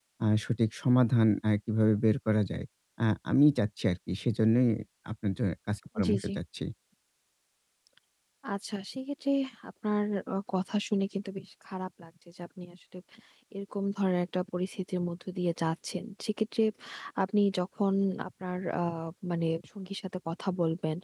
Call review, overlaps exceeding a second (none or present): none